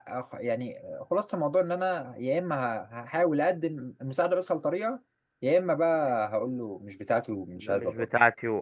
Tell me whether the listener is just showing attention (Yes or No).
No